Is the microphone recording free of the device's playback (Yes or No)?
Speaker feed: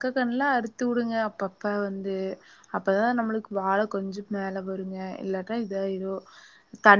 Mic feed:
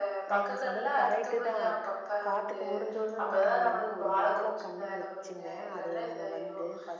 No